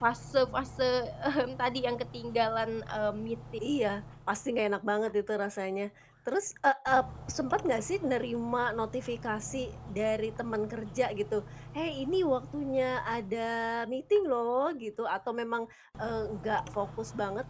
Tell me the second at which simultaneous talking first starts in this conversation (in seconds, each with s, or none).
none